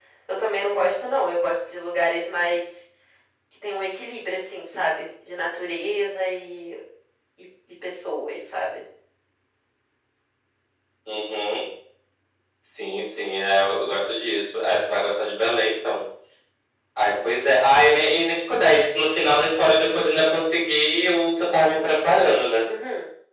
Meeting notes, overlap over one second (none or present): none